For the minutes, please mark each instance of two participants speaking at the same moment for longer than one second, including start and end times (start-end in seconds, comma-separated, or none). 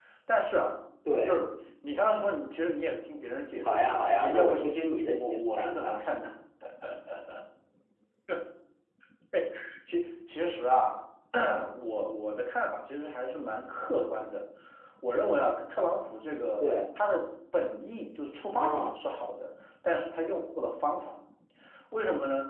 3.6-6.0